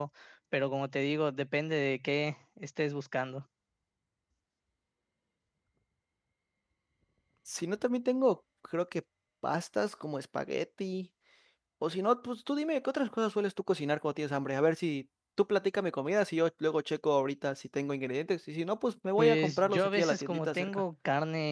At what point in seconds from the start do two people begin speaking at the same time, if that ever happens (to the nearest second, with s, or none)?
19 s